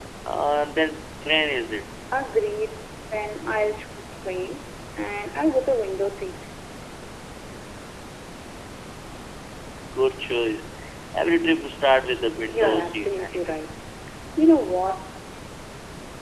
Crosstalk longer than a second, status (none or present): present